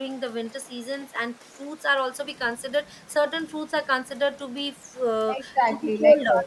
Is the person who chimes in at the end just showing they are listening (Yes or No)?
No